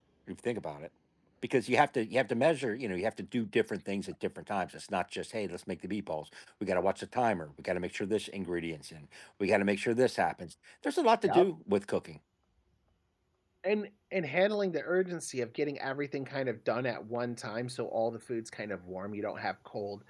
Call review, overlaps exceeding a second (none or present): none